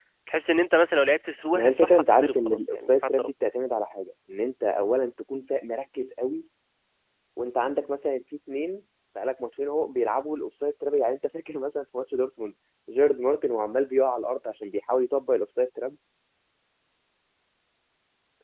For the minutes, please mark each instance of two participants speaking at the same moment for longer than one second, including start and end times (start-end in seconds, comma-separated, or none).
1.5-3.3